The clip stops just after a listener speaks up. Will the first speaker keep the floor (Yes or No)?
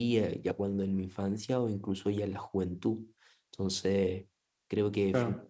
Yes